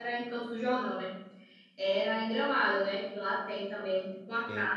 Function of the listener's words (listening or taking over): listening